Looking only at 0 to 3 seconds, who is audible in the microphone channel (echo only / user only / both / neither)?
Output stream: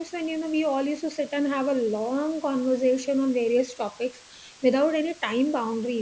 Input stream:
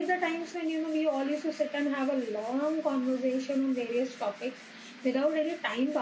echo only